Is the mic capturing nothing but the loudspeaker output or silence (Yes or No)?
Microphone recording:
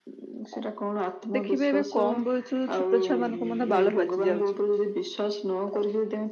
No